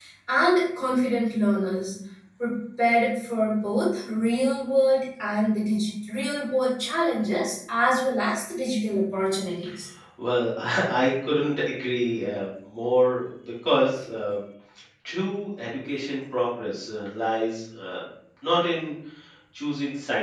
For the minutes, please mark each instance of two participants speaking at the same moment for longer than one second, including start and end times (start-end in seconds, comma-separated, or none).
none